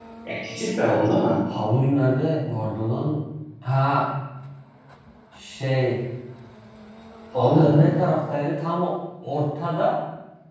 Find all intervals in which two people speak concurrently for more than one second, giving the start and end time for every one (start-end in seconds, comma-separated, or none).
none